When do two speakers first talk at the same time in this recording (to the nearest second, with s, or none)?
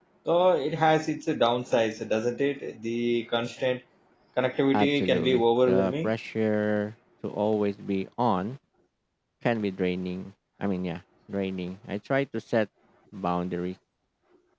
5 s